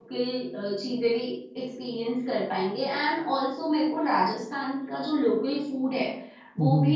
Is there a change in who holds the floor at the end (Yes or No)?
No